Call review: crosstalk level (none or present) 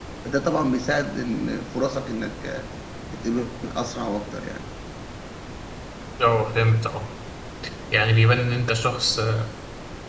none